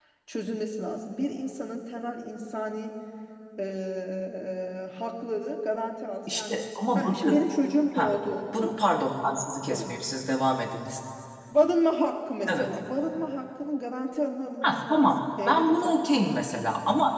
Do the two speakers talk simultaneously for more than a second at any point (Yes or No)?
Yes